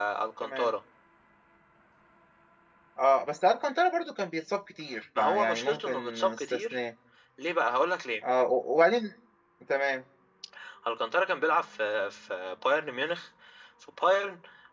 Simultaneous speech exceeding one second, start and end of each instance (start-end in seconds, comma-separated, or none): 5.2-6.8